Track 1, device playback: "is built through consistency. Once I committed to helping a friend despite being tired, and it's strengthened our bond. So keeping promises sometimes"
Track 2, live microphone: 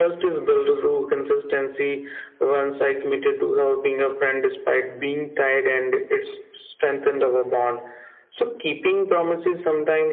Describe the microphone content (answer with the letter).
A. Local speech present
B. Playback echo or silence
B